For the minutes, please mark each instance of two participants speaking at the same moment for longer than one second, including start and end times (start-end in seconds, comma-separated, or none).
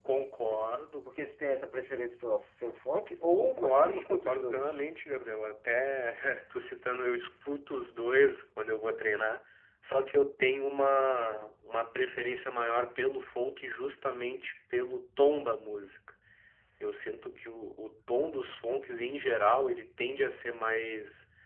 3.3-4.8